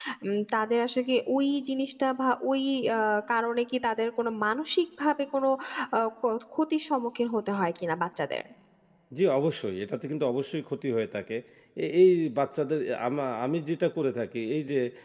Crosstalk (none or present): none